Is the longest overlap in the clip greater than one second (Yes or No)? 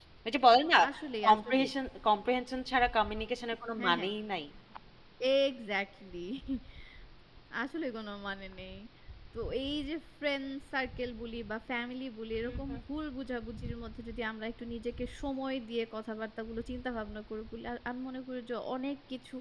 No